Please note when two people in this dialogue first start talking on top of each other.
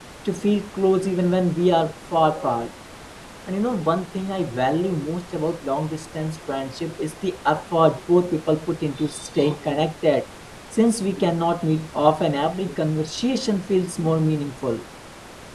none

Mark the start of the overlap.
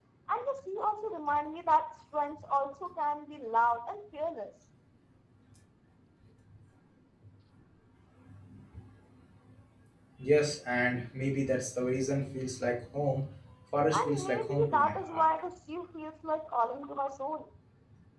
13.9 s

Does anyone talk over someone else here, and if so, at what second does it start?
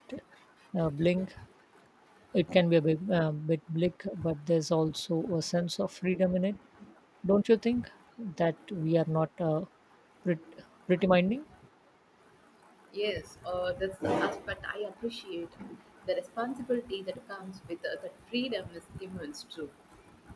none

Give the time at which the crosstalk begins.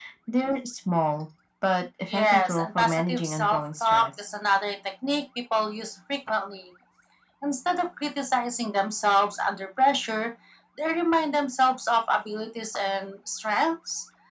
2.1 s

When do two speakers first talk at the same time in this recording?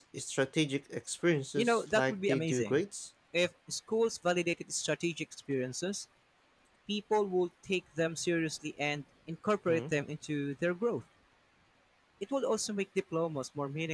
1.6 s

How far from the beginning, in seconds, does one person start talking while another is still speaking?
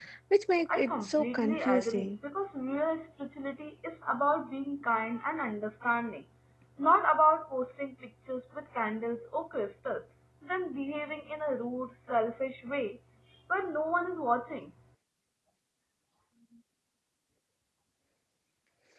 0.7 s

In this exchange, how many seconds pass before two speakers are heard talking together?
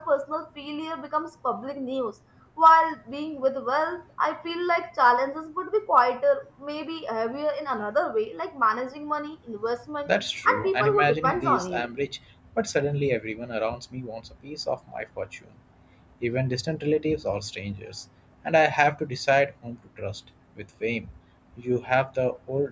10.5 s

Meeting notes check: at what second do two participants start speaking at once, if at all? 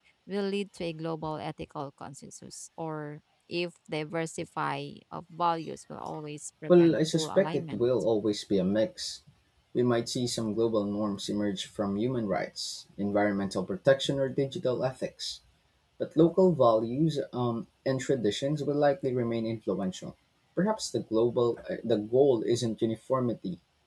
6.7 s

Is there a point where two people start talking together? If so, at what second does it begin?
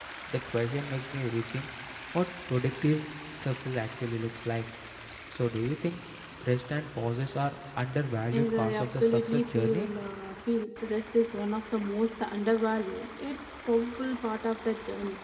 8.3 s

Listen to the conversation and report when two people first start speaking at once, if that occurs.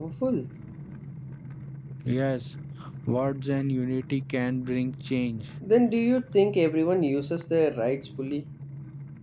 none

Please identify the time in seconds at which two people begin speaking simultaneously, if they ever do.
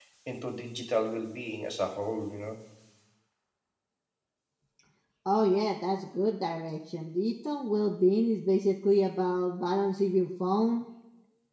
none

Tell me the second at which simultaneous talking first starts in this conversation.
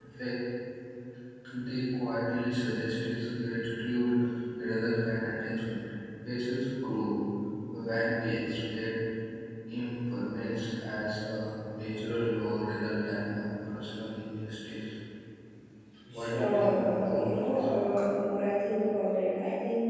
16.1 s

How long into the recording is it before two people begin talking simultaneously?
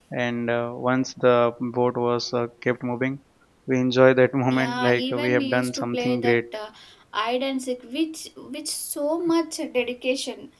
4.5 s

